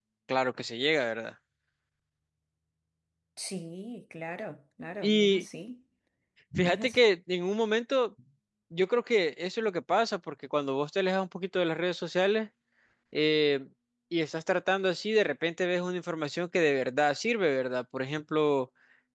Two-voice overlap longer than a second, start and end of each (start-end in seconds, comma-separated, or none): none